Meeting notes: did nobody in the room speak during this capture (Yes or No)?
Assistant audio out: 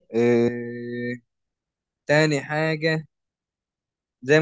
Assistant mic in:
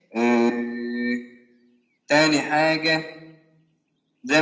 Yes